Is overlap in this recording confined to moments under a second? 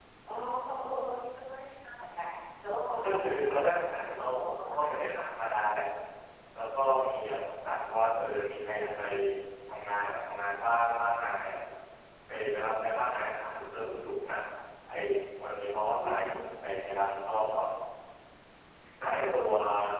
No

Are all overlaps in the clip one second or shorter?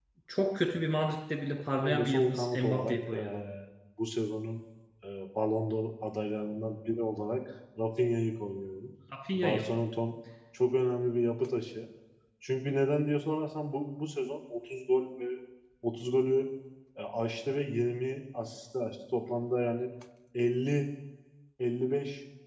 No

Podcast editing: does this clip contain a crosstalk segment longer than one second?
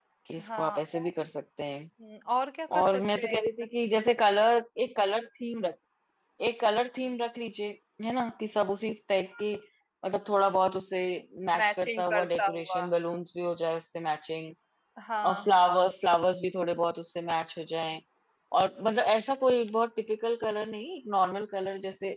Yes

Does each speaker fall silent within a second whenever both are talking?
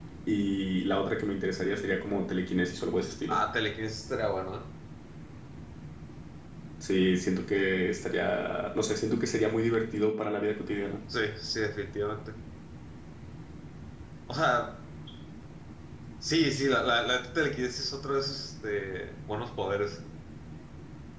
Yes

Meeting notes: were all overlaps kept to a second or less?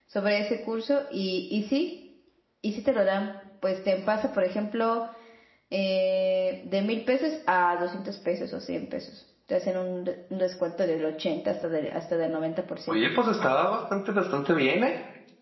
Yes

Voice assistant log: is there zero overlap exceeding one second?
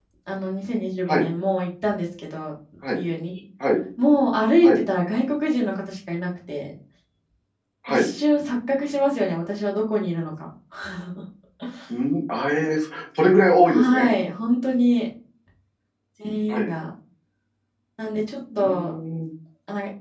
Yes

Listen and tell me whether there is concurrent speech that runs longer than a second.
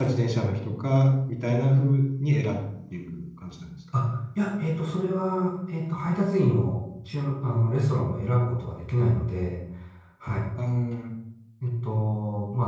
No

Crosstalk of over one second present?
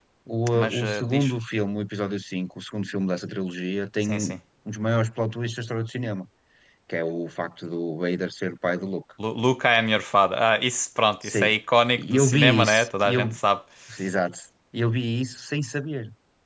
Yes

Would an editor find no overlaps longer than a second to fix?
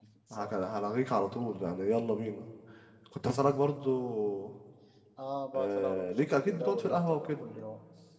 No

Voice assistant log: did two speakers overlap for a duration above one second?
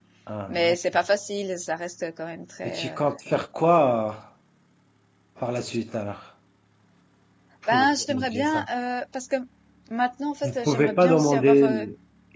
Yes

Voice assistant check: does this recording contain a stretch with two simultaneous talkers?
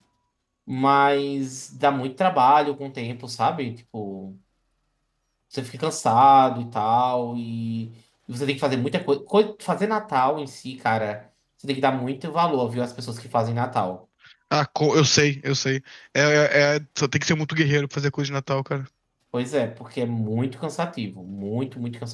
No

